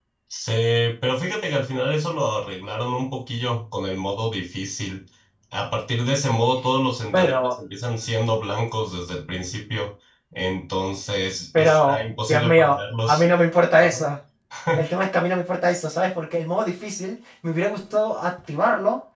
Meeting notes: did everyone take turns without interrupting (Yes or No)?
No